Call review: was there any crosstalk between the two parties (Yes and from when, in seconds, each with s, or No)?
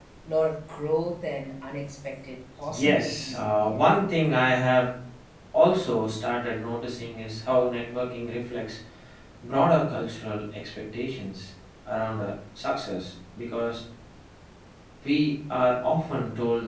Yes, from 2.6 s